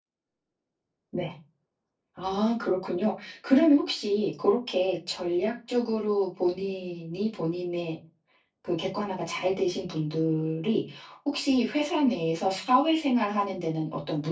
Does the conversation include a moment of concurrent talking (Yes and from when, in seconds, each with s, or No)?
No